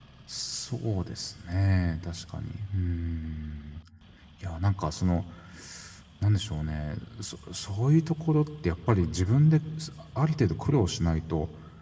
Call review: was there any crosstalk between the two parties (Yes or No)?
No